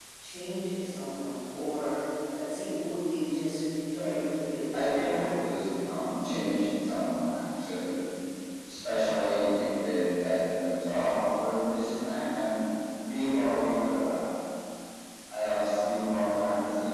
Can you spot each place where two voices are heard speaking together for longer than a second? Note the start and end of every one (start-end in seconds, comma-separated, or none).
4.7-6.3